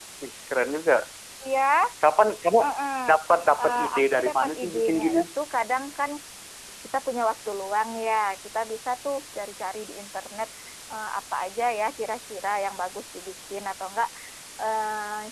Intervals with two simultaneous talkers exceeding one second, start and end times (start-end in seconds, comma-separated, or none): 3.6-5.2